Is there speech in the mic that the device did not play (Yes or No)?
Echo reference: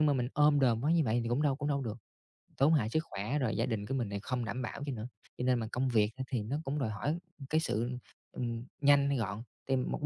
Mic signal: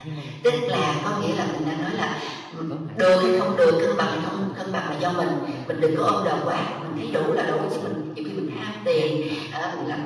Yes